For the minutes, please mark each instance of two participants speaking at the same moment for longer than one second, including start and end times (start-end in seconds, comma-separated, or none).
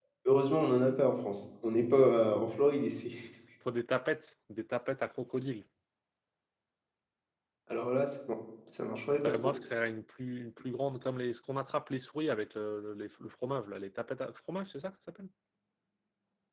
none